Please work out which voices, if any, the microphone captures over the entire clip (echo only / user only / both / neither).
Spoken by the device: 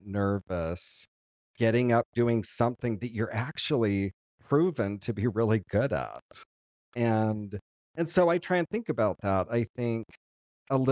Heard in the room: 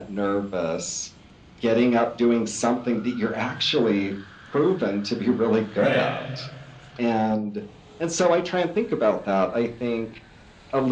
both